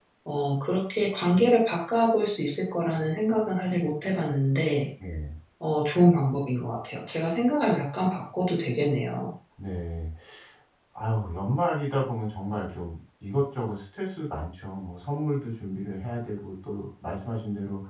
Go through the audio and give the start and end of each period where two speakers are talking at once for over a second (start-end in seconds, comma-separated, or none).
none